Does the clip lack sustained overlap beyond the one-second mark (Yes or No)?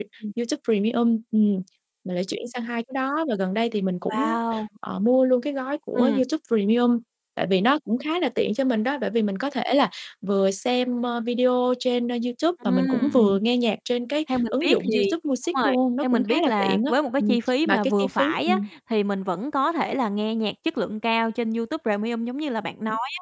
No